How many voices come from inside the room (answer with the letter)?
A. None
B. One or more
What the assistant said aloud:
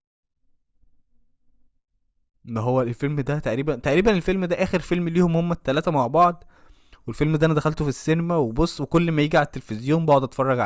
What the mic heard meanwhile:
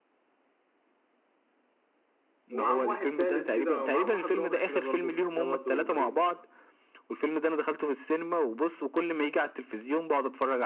B